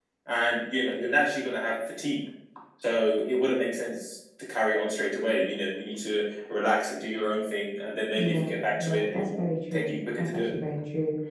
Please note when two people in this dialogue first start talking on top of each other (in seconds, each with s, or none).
8.2 s